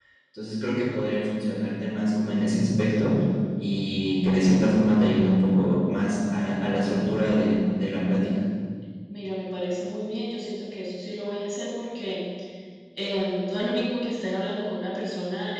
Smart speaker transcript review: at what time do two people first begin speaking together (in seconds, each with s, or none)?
none